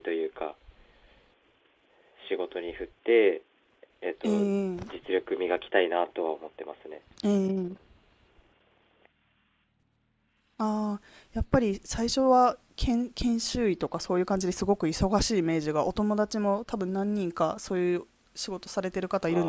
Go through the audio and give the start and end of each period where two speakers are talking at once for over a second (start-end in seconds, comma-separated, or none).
none